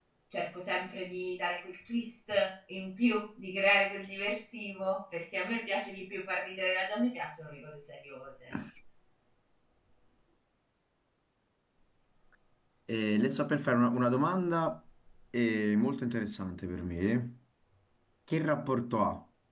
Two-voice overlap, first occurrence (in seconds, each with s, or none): none